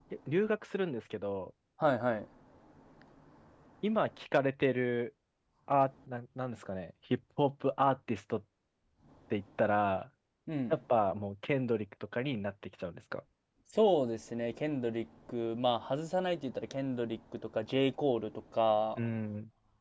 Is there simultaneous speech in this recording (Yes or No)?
No